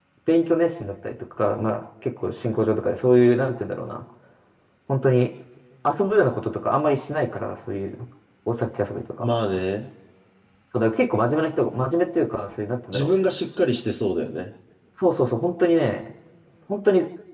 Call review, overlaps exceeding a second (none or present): none